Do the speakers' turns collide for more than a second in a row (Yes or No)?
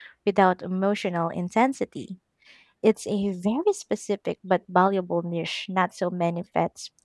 No